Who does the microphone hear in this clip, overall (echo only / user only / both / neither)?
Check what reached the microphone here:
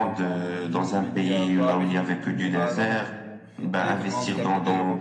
both